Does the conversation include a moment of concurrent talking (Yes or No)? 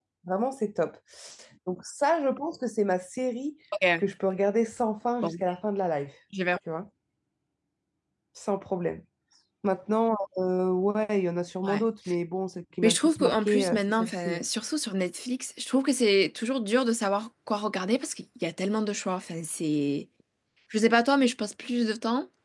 Yes